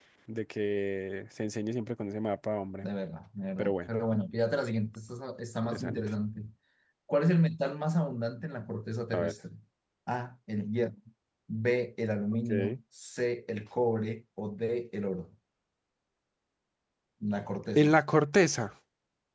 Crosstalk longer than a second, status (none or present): none